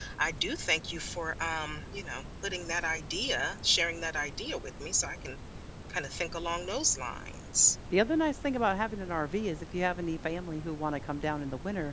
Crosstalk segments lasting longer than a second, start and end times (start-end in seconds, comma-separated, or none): none